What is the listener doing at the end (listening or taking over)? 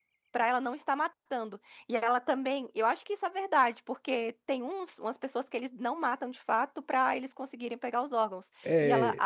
listening